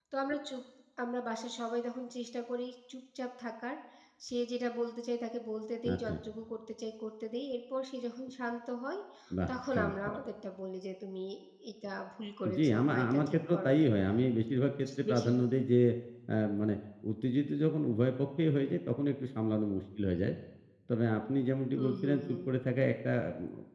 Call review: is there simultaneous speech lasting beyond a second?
Yes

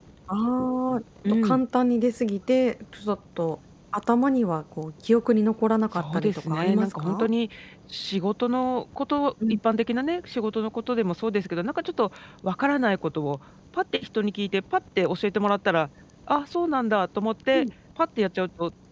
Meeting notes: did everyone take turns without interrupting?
No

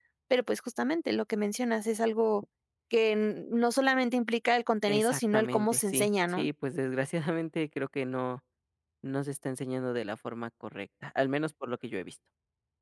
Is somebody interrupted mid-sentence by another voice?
Yes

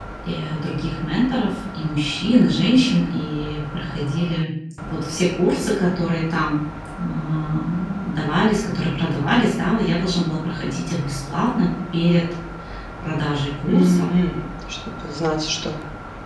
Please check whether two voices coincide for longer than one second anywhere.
No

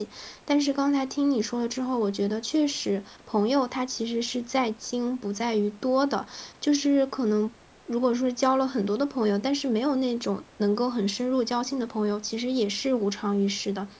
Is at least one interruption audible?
No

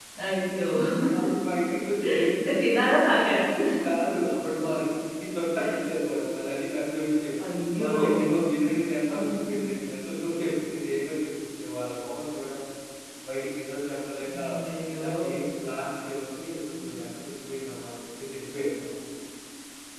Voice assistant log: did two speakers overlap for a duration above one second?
No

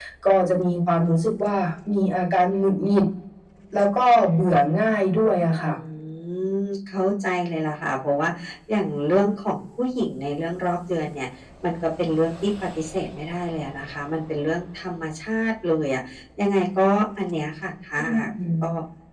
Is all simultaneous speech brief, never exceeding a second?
Yes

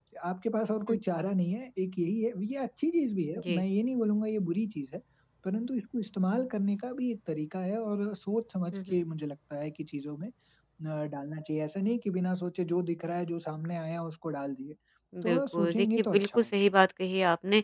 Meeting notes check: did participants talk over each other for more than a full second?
Yes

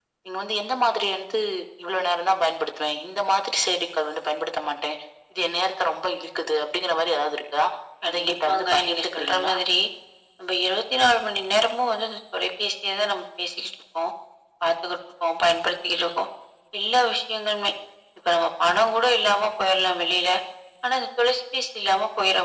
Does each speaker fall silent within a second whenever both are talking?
No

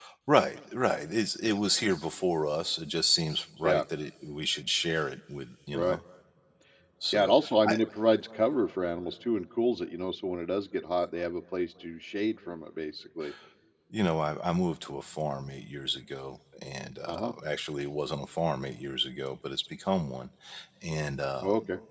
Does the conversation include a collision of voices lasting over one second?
No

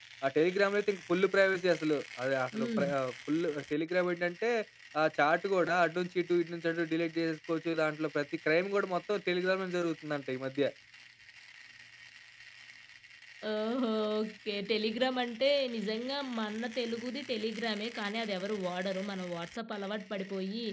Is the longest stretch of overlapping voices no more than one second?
Yes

